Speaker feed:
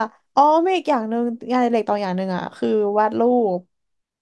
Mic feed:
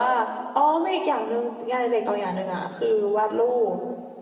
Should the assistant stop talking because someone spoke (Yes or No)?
No